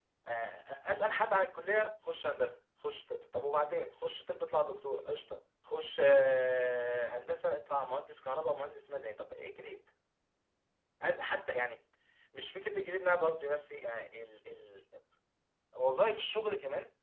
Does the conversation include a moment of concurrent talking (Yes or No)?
No